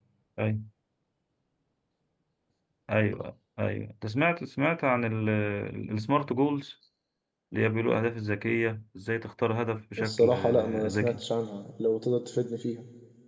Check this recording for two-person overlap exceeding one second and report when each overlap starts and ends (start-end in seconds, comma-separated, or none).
10.0-11.2